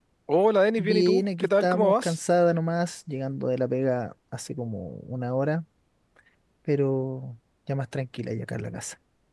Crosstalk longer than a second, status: present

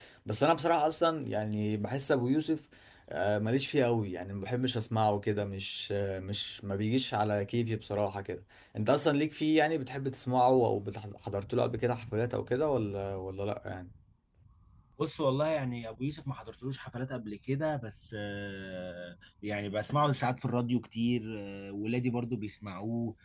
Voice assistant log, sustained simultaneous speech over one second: none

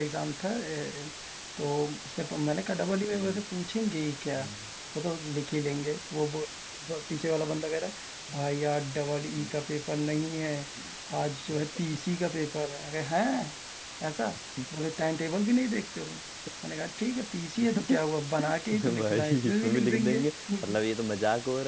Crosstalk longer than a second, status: present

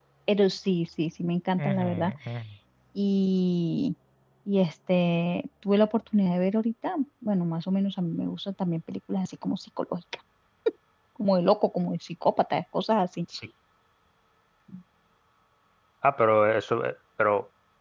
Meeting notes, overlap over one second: none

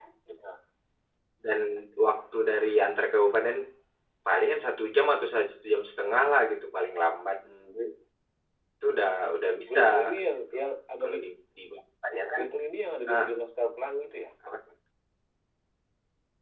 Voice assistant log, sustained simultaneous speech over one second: none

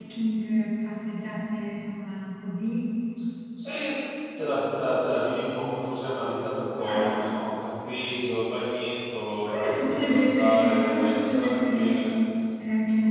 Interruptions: present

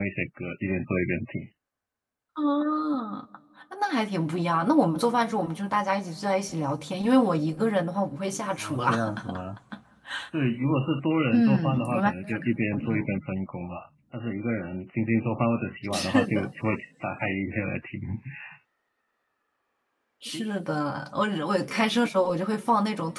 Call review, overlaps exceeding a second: present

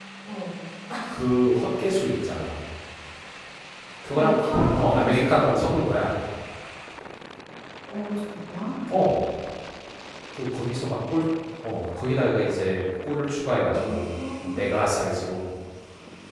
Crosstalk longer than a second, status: present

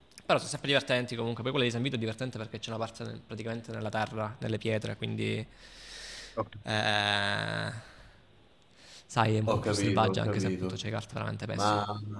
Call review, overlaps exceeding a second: present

